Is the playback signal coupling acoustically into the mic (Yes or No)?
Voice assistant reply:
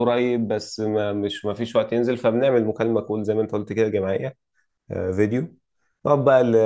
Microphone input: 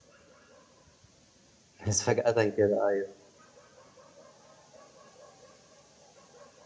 No